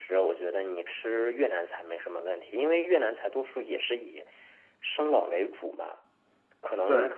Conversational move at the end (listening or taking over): listening